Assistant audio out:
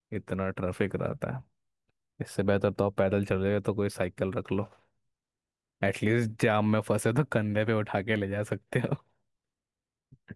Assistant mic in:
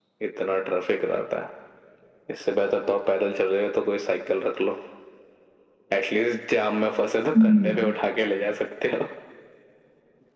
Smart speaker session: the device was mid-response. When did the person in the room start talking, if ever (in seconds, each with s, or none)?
7.4 s